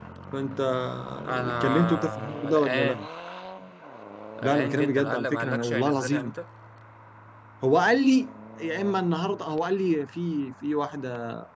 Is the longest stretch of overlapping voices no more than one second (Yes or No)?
No